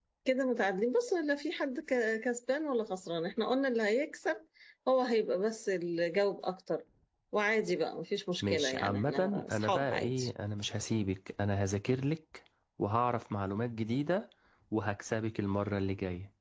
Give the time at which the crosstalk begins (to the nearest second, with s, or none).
8 s